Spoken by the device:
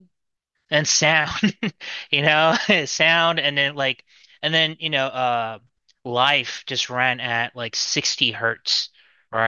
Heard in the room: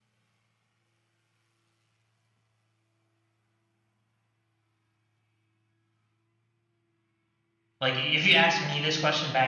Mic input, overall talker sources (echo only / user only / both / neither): user only